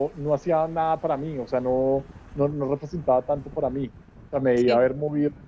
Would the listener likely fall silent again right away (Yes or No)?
Yes